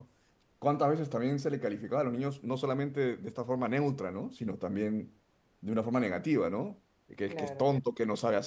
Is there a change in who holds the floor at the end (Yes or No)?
No